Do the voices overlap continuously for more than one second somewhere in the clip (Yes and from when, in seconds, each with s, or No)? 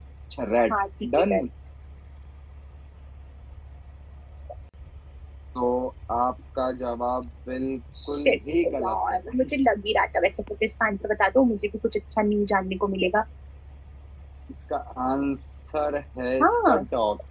No